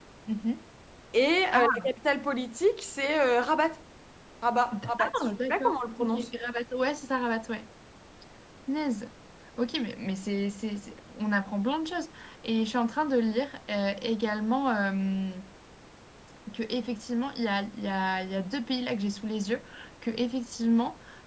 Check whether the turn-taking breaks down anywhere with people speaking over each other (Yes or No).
Yes